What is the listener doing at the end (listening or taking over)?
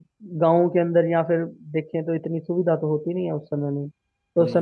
listening